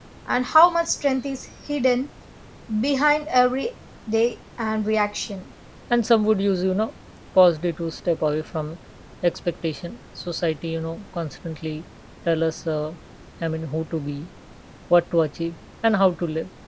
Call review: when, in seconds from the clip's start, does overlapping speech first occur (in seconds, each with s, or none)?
none